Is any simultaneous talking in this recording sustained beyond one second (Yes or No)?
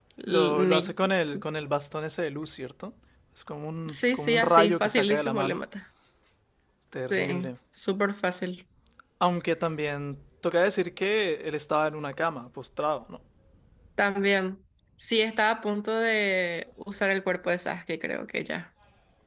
Yes